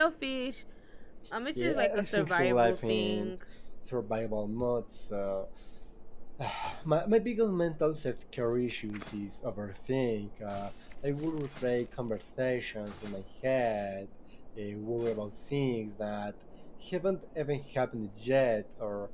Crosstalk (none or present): present